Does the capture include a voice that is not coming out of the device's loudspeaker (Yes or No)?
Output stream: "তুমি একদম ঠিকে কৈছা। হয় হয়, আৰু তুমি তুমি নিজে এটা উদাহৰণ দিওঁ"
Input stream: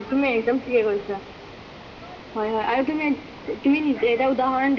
No